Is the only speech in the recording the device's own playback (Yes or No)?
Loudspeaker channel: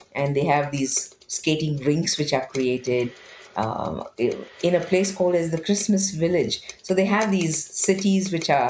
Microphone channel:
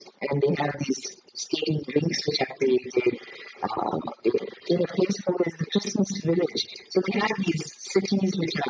Yes